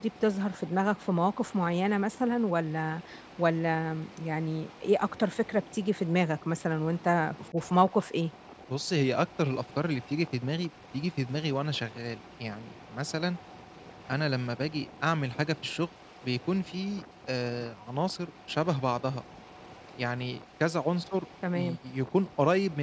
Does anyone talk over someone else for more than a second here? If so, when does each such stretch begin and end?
none

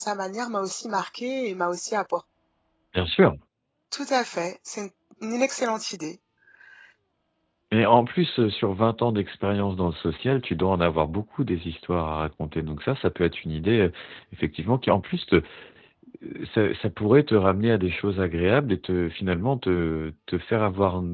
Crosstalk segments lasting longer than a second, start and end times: none

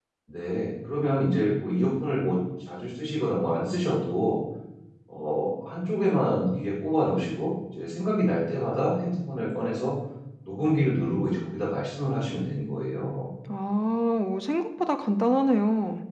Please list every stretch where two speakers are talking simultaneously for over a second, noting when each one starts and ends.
none

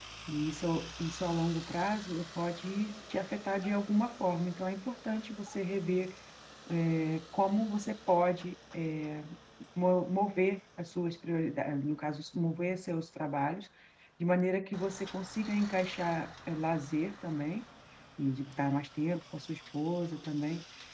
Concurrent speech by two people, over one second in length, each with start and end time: none

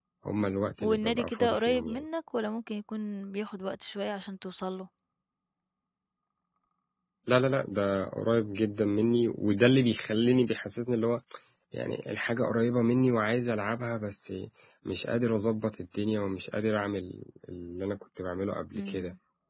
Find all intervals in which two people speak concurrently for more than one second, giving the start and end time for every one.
0.8-2.0

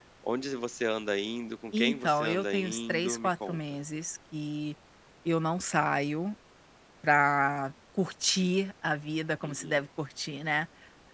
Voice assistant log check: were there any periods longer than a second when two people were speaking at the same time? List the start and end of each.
1.8-3.6

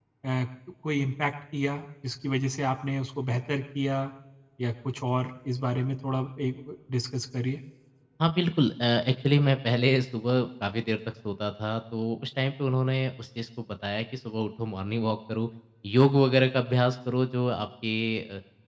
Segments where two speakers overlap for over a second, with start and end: none

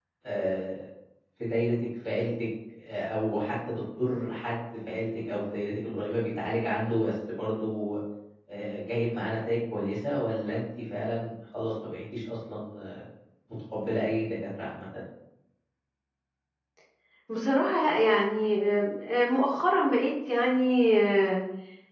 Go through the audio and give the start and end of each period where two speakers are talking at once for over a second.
none

